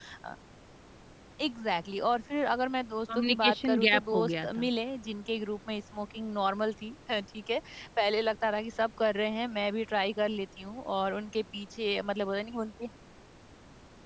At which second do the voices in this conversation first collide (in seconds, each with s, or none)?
3.1 s